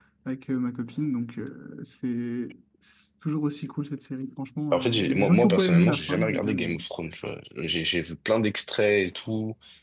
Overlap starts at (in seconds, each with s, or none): 4.7 s